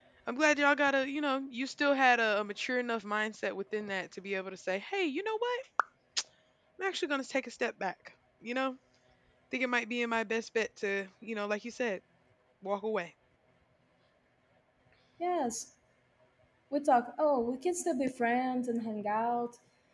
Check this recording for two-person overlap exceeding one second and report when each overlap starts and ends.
none

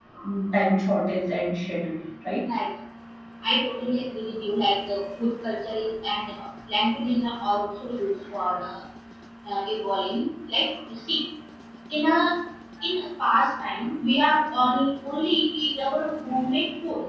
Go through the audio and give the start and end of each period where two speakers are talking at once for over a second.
none

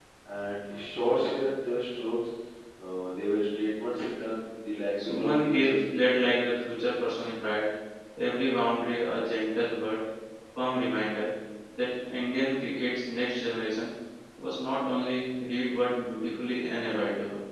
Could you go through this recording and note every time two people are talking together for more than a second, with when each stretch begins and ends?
5.0-6.2

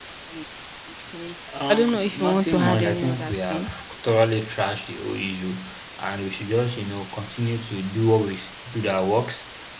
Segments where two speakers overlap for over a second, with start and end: 1.7-3.7

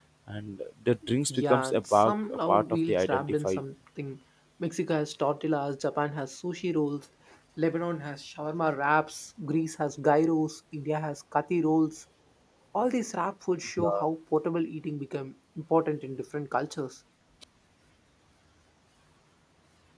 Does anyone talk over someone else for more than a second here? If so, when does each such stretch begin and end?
1.3-3.6

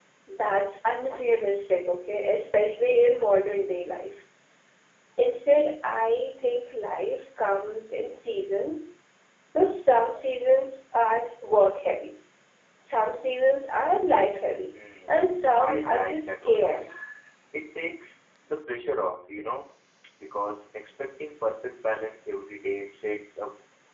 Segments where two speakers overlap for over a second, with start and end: 15.6-16.9

